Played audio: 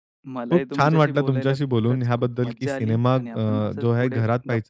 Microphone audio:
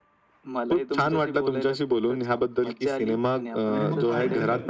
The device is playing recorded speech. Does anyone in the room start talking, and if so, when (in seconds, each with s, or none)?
3.7 s